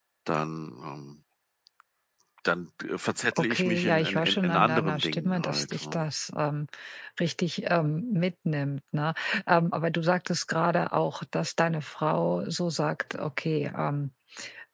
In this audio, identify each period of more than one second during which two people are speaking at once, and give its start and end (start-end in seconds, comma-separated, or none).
3.3-6.1